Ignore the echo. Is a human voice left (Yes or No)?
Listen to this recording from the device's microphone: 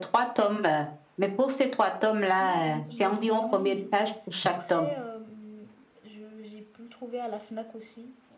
Yes